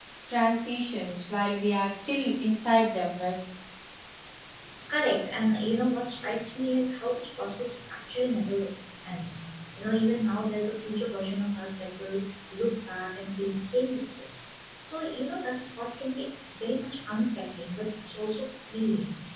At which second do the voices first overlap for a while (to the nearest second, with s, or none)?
none